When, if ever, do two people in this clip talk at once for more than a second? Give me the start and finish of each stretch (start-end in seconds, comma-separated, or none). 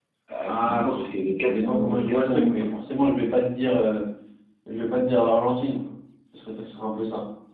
1.4-2.7